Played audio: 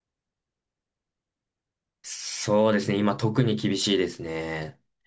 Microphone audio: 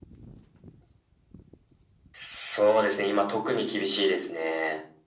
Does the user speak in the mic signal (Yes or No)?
No